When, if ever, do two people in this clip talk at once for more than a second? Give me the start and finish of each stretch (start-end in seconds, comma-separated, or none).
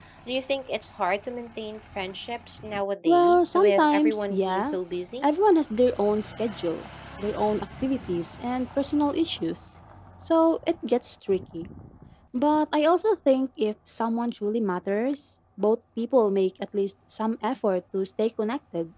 3.1-4.8